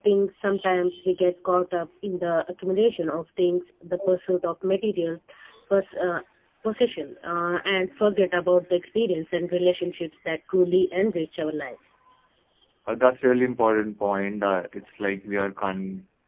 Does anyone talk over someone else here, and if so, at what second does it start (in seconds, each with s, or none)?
none